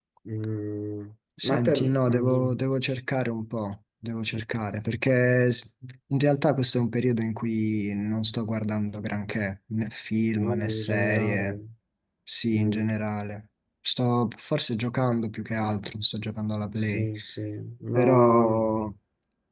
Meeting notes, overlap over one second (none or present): present